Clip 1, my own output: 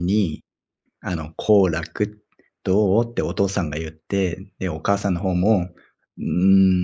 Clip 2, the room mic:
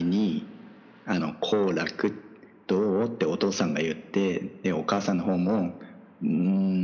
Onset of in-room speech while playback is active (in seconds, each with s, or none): none